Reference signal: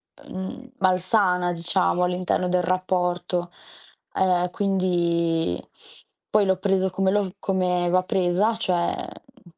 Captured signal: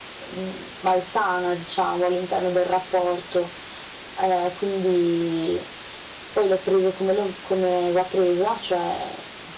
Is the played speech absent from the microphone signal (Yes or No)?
No